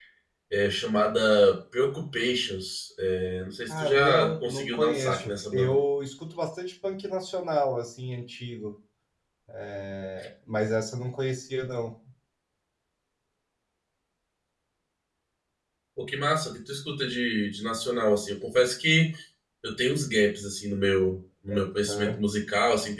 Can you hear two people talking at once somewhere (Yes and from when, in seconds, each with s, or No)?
Yes, from 3.7 s